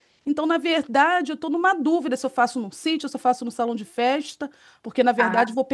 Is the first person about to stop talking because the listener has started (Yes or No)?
No